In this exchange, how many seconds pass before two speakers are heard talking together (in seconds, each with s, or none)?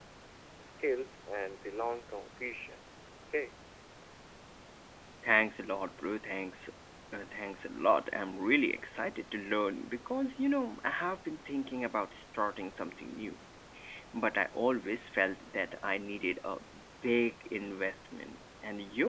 none